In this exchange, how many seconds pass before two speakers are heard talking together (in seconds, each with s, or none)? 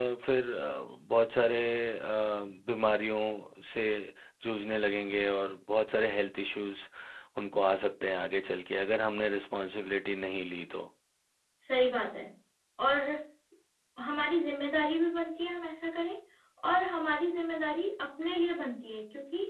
none